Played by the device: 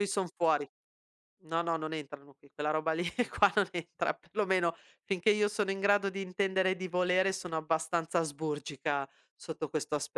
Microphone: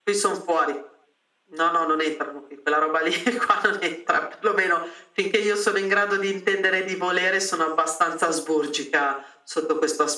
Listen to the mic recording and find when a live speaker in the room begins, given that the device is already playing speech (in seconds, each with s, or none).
none